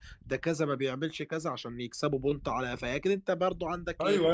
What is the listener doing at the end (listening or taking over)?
taking over